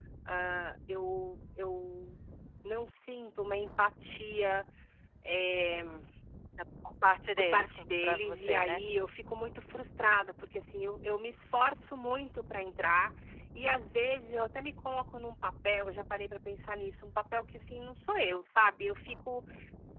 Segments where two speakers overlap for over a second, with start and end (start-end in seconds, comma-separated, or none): 7.4-8.8